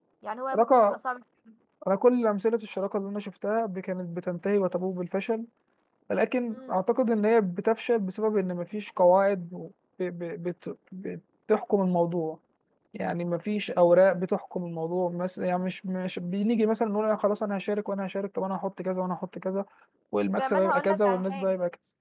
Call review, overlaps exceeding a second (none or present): present